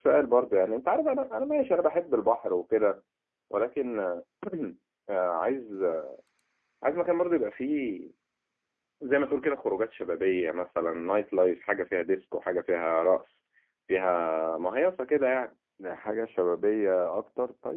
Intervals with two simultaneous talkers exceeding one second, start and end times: none

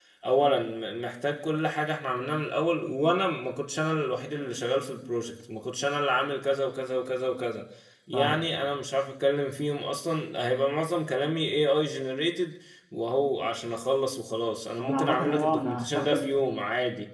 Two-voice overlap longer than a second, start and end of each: 14.8-16.4

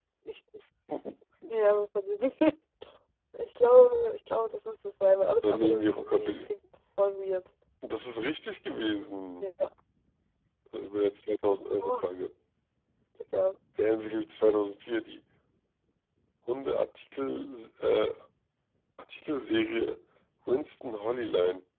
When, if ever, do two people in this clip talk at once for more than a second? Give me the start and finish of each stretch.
5.3-6.5

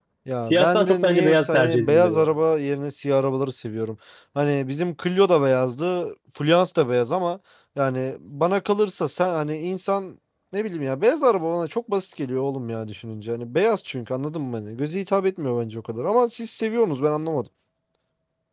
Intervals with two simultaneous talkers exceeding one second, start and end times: 0.5-2.3

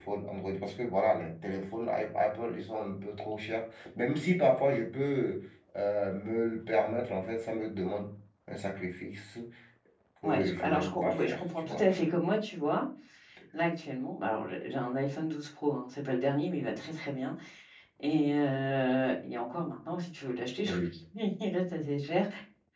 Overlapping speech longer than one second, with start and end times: 10.2-11.9

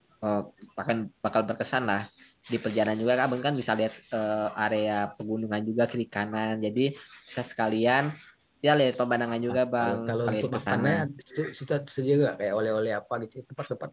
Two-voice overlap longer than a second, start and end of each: 9.5-11.0

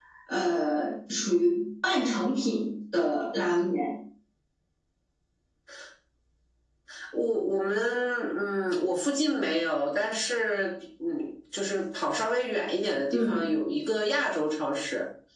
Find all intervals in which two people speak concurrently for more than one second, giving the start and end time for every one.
none

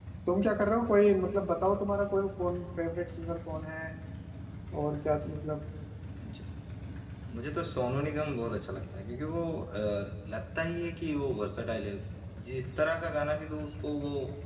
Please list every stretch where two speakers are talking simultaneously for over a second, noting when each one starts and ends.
none

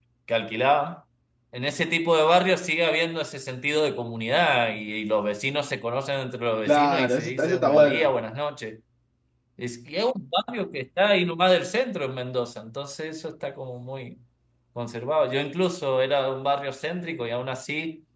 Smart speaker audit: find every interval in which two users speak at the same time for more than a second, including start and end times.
6.7-8.1

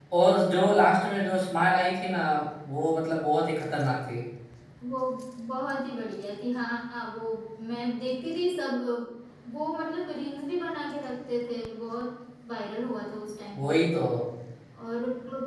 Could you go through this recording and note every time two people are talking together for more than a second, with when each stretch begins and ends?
none

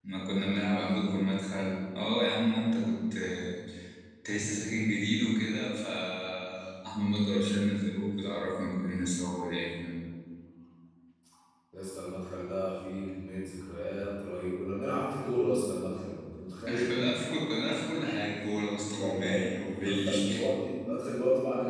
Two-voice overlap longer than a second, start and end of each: 18.7-20.1

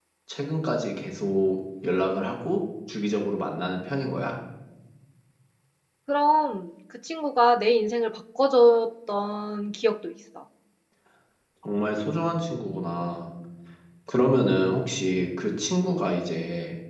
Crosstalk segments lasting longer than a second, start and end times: none

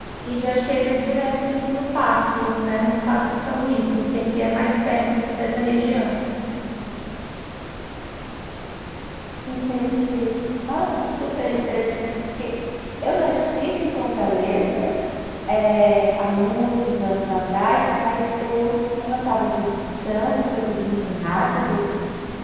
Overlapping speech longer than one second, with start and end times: none

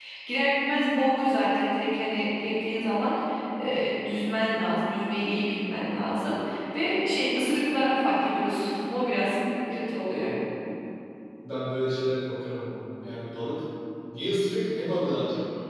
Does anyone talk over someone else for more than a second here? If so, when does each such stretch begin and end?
none

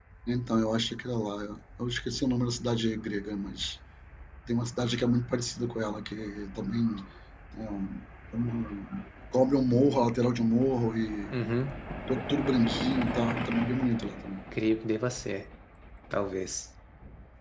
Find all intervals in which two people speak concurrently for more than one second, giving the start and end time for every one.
none

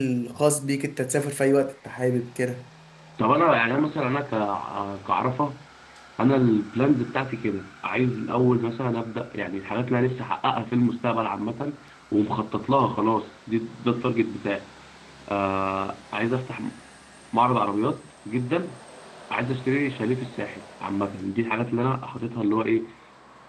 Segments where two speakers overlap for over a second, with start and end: none

